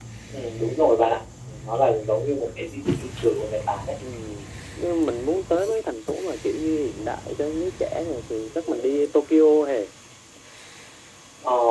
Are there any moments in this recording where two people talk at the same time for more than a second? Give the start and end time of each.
none

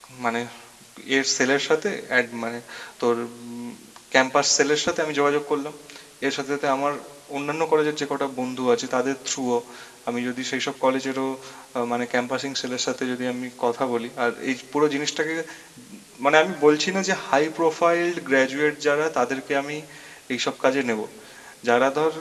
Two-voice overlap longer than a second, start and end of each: none

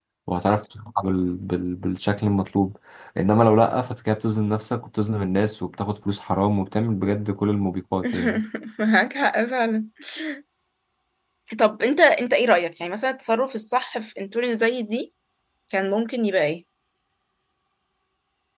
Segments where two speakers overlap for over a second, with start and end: none

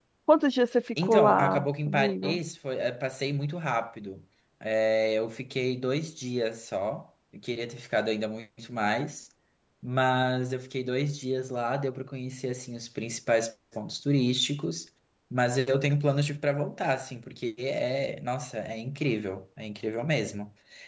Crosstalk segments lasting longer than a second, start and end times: 1.0-2.4

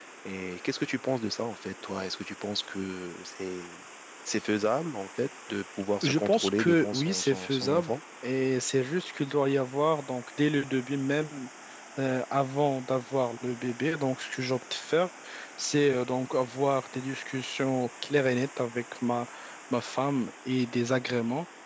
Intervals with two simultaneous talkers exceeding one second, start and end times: 6.0-7.9

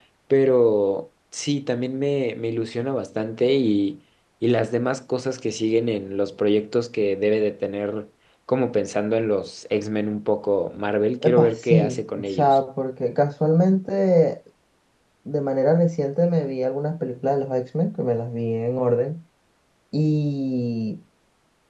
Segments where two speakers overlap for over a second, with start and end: 11.2-12.6

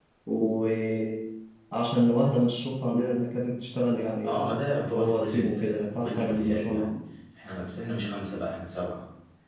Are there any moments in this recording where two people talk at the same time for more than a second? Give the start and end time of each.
4.2-6.9

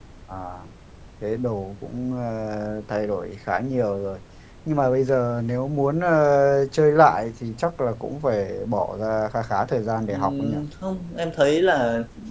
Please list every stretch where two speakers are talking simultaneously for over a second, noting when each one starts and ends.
none

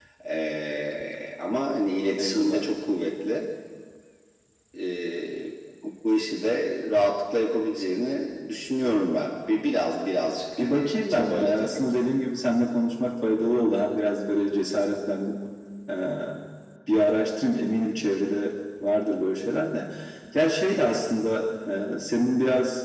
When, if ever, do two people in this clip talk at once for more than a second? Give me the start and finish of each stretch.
10.6-11.8

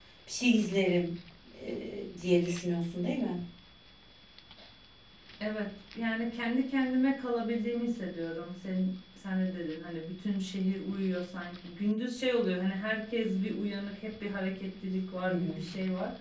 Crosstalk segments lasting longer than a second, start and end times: none

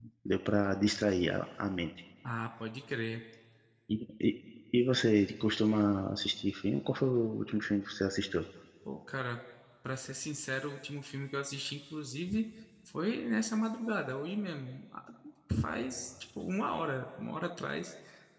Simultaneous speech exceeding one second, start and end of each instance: none

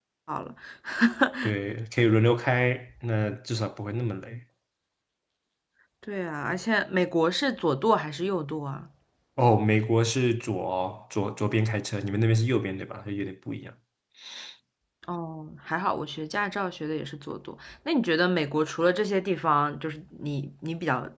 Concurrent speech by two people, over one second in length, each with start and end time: none

